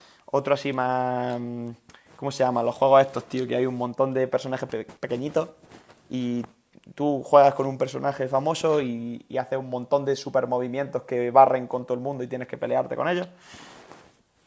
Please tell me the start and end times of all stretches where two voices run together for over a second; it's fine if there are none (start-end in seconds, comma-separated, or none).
none